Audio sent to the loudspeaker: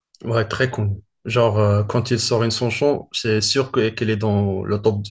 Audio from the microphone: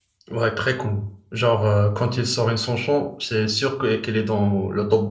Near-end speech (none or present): none